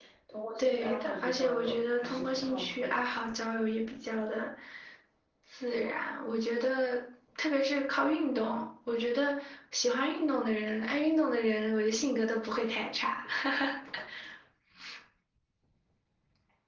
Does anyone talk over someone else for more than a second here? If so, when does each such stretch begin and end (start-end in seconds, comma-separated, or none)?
0.6-3.0